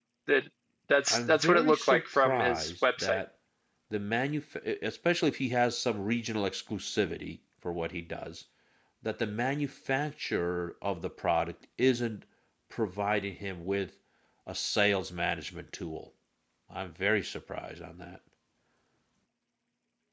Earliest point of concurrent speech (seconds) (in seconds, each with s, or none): 1.1 s